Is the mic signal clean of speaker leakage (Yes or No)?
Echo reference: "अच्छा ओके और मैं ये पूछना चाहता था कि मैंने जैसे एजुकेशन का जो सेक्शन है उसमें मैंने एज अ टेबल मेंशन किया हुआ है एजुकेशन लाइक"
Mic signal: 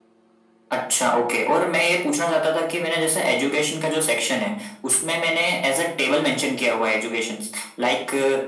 No